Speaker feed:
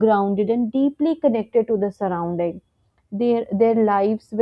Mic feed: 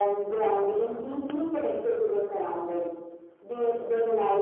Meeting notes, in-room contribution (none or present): none